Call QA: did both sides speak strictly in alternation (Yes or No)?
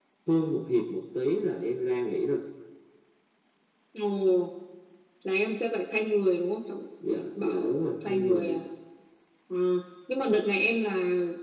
No